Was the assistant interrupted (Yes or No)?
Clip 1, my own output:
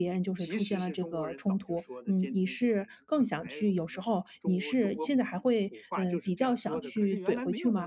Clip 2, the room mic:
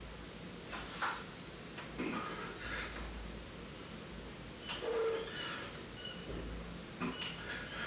No